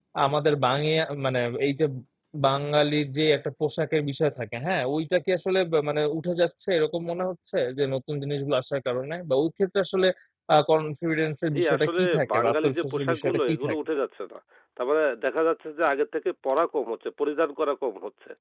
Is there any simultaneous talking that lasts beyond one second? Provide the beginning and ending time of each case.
11.6-13.8

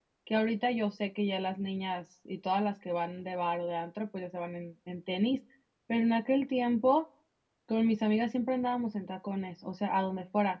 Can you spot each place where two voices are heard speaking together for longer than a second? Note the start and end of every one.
none

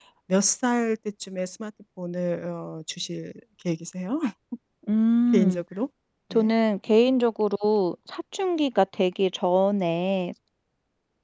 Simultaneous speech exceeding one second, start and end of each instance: none

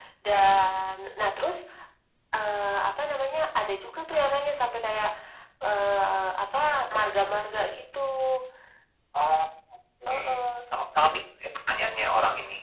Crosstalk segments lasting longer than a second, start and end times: none

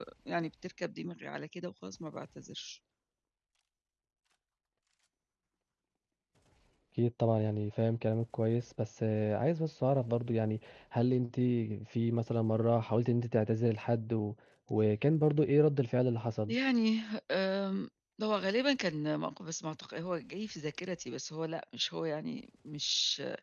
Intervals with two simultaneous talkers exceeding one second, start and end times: none

